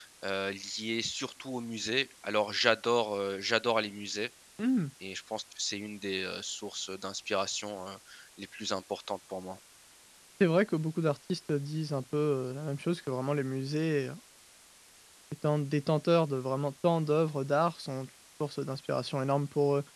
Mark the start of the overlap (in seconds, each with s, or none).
none